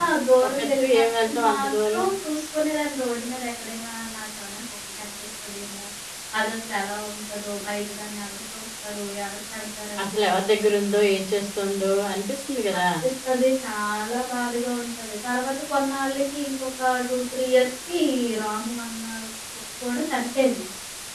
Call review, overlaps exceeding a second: present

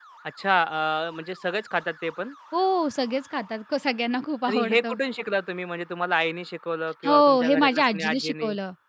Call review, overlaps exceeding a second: present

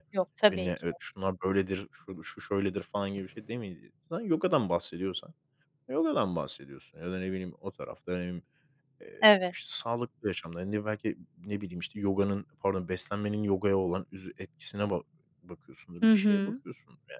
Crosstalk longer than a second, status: none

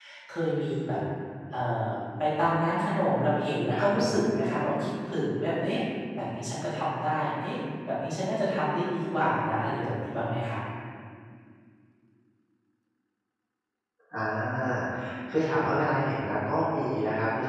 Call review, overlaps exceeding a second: none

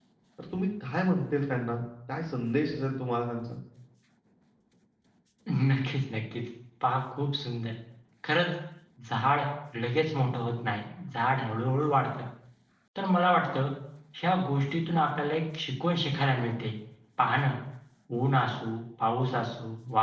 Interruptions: none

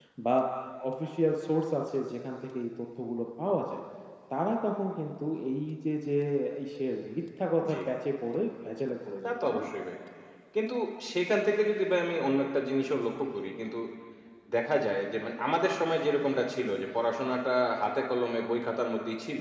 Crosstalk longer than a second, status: none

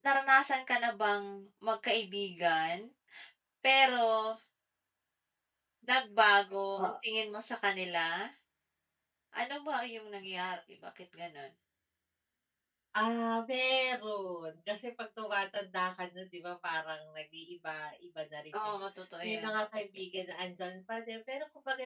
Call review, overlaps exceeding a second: none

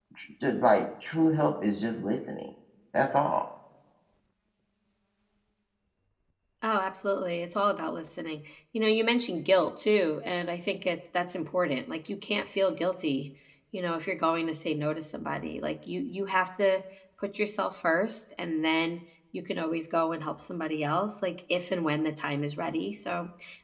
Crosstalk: none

